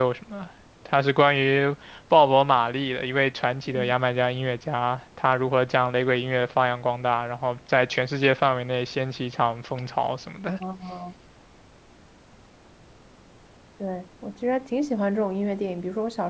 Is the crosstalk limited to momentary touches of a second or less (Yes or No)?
Yes